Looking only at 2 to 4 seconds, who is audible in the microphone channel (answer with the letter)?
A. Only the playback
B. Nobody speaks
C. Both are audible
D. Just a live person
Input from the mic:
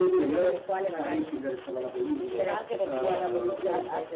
C